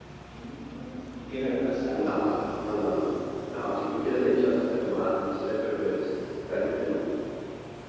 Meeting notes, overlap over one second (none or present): none